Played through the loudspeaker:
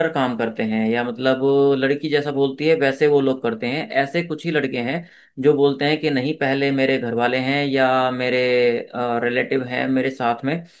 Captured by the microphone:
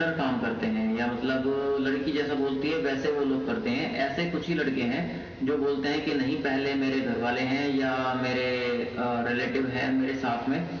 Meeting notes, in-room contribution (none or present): none